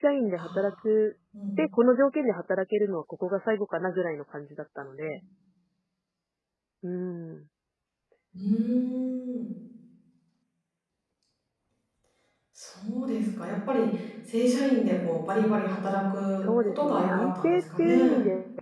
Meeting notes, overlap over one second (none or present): present